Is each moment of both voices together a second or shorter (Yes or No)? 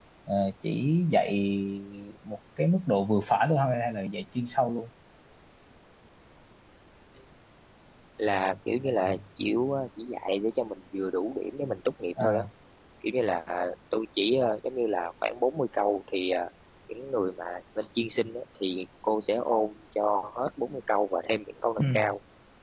Yes